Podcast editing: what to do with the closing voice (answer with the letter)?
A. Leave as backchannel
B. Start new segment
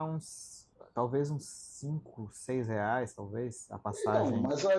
B